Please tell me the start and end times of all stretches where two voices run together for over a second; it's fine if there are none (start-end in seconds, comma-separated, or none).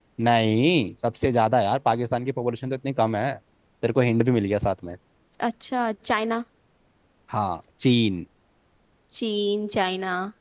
none